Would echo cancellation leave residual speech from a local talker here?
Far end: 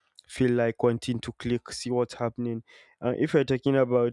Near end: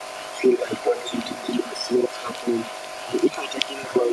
No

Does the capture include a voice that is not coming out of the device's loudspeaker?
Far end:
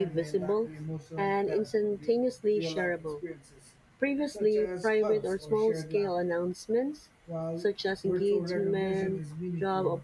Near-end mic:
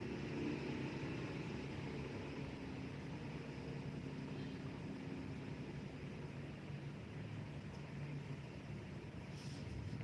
No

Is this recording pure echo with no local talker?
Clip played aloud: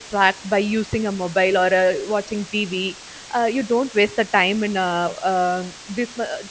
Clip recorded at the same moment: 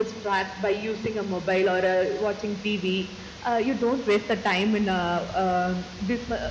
Yes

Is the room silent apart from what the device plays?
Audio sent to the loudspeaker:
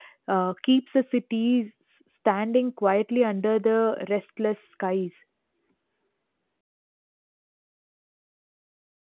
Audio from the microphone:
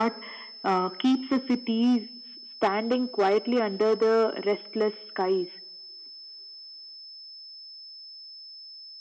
Yes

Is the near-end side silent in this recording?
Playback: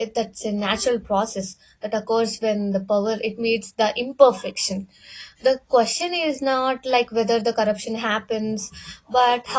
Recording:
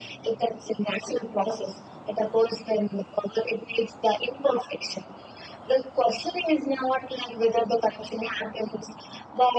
Yes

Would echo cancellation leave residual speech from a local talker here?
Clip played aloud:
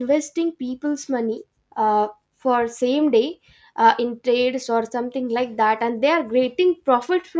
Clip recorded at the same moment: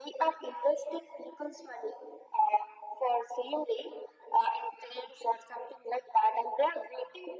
No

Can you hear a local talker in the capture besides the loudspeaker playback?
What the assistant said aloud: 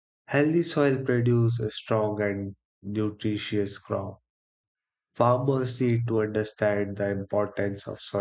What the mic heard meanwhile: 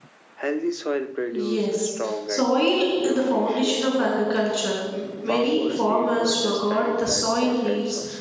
Yes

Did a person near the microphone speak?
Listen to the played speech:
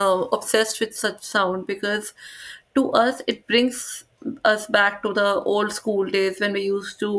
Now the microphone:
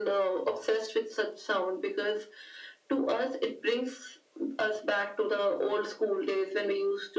No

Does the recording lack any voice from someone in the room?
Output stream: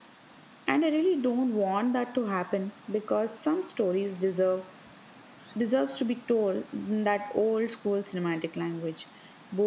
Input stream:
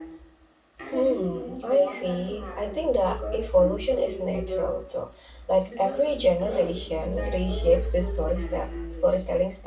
No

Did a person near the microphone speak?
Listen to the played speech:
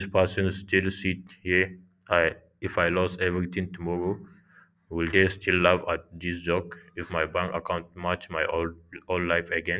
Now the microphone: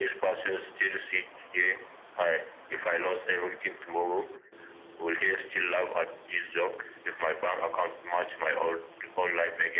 No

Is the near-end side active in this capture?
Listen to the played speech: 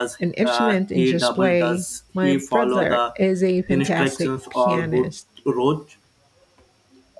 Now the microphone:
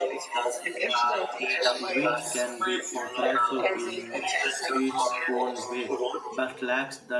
Yes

